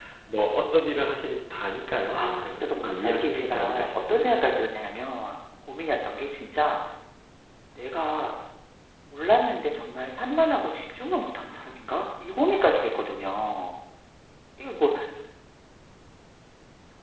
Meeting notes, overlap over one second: present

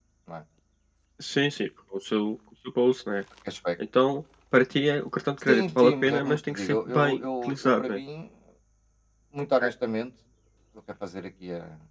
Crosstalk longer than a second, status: present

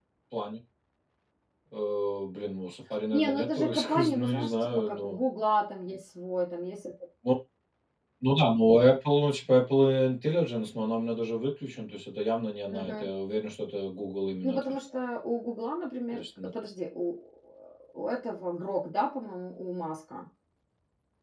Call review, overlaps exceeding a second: present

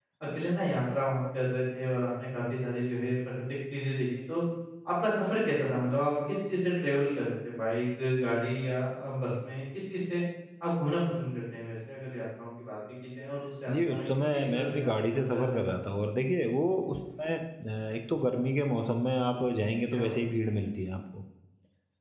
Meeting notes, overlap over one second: present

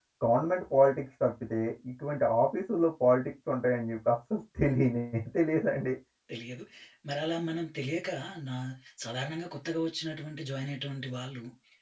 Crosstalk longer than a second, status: none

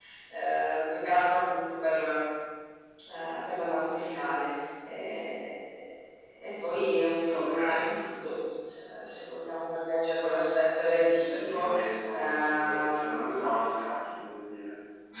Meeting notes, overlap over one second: present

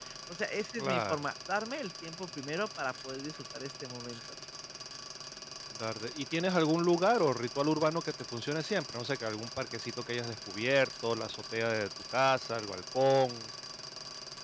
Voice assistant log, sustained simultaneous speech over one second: none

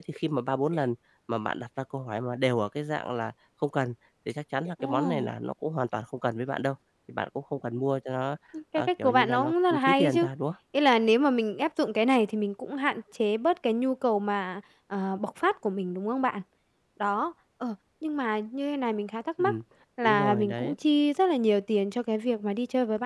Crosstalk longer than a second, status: present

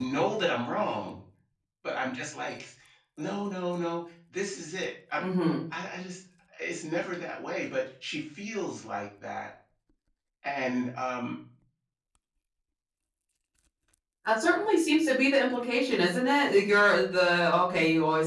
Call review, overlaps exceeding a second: none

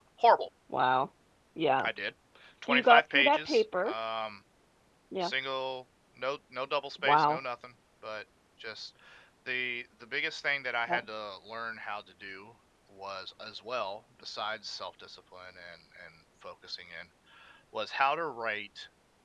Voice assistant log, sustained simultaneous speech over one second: present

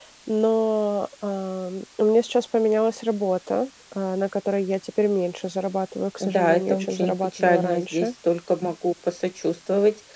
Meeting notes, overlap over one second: present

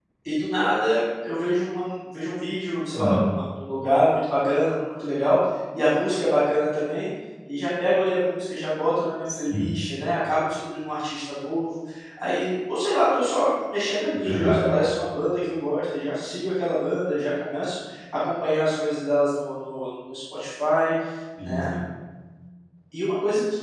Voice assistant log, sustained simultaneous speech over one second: none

